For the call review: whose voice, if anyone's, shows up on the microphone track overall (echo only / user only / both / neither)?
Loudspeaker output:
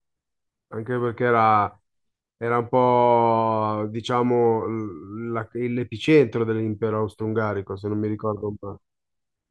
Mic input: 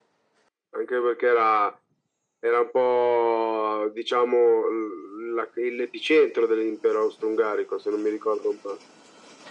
echo only